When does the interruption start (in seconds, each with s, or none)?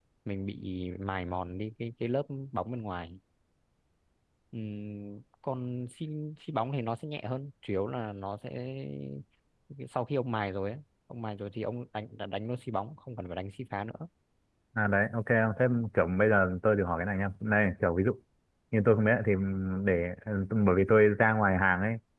none